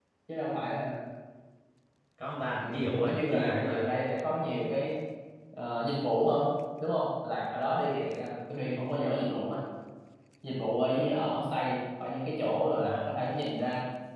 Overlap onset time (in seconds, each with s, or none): 2.5 s